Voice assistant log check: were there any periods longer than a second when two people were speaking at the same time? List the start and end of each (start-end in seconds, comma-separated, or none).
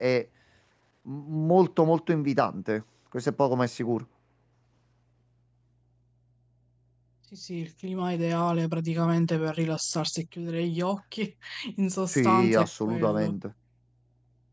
12.1-13.4